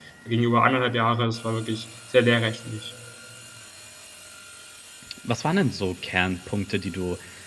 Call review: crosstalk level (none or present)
none